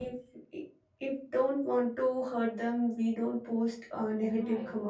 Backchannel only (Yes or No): No